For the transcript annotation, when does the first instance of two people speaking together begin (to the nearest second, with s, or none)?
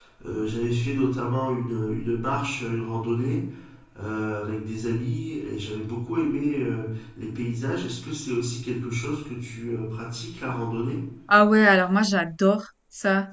none